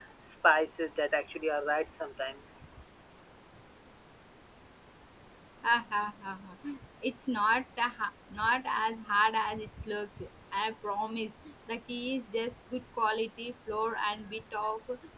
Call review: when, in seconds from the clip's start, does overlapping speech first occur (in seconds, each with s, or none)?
none